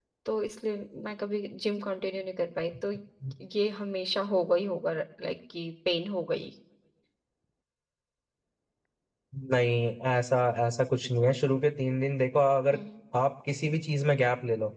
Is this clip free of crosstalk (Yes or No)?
Yes